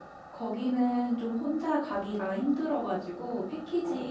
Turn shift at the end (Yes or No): No